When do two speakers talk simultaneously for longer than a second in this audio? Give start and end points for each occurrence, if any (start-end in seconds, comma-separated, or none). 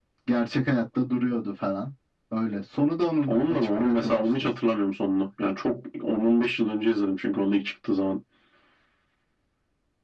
3.3-4.5